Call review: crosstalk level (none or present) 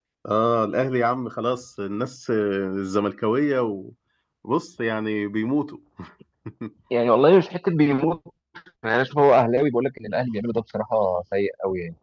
none